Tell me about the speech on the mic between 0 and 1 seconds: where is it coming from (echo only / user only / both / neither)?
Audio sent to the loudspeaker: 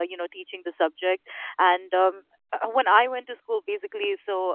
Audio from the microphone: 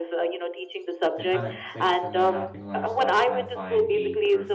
echo only